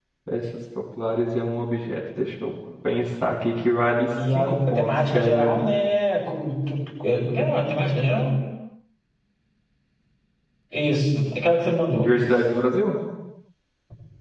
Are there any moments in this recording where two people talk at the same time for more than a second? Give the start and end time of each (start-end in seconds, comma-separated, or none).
4.4-5.6